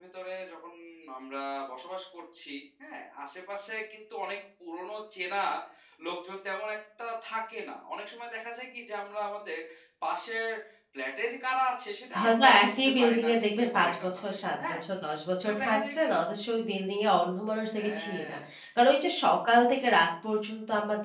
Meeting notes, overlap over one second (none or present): present